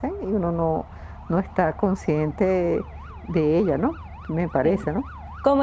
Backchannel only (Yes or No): No